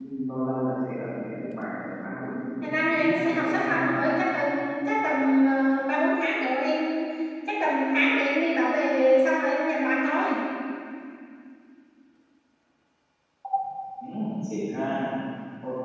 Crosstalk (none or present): present